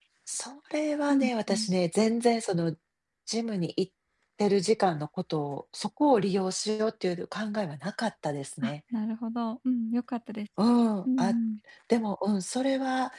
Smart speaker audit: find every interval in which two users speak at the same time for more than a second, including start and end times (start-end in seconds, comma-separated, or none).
none